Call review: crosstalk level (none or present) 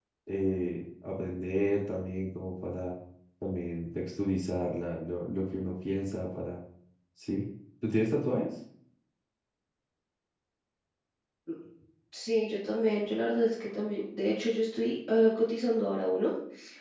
none